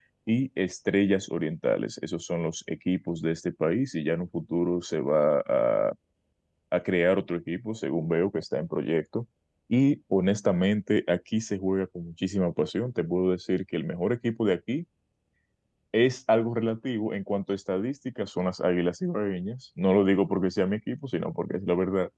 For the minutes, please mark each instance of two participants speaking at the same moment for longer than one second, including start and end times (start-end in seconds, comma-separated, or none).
none